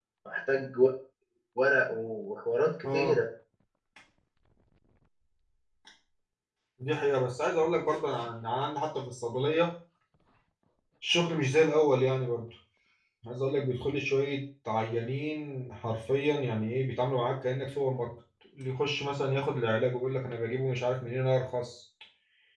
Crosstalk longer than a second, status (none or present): none